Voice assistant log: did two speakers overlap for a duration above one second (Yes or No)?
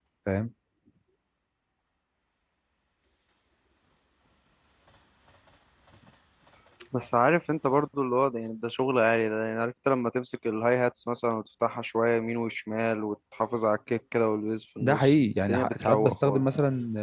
Yes